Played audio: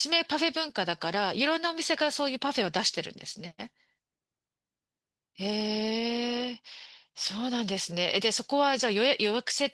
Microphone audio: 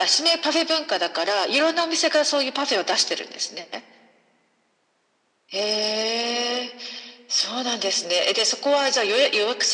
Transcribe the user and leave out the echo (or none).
none